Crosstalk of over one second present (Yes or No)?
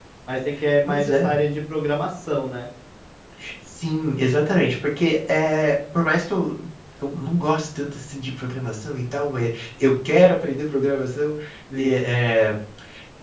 No